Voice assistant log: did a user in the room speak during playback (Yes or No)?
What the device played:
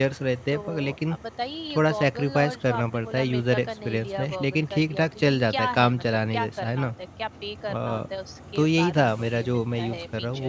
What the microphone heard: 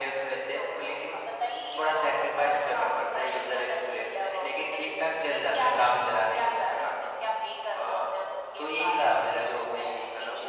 No